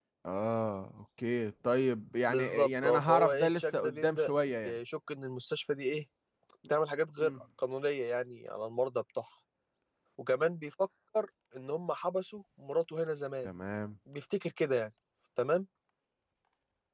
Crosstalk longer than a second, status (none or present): present